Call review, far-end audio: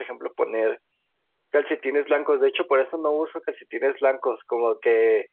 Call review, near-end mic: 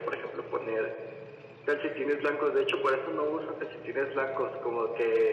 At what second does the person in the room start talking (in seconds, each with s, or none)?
none